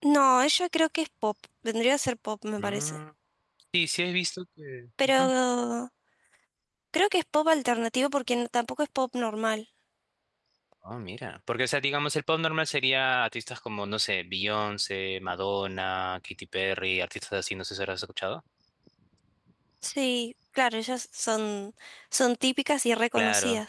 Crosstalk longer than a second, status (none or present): none